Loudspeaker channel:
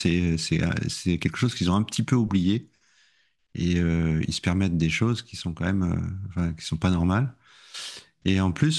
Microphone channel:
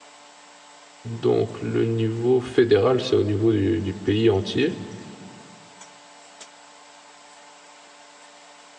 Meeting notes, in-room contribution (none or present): present